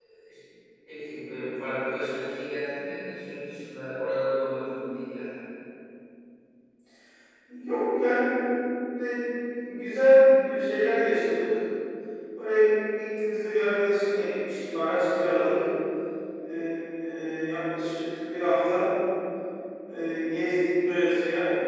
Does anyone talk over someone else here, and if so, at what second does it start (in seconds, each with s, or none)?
none